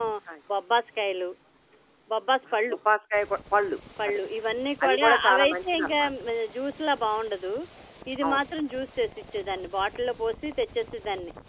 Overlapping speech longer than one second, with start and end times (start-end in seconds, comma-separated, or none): 4.8-6.1